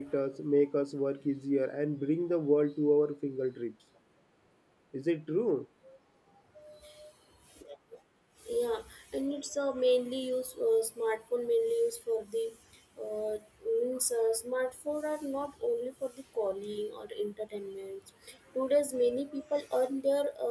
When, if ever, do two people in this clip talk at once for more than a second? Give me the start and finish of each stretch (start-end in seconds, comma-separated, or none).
none